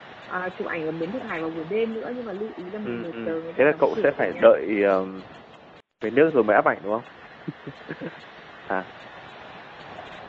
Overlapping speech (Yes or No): Yes